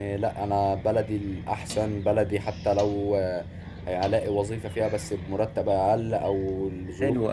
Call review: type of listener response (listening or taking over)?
taking over